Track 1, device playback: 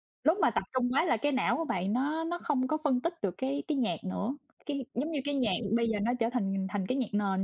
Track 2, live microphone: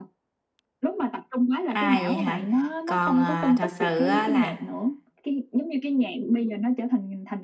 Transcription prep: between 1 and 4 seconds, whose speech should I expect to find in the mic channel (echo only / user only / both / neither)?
both